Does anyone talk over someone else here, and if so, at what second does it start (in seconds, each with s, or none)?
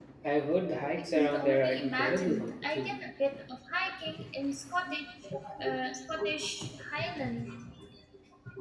1.1 s